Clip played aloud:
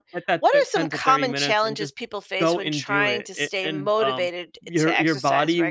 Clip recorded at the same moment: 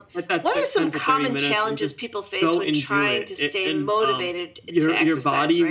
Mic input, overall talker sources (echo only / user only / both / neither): echo only